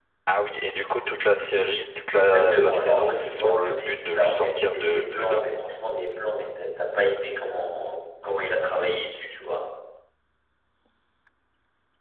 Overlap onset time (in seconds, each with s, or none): 2.1 s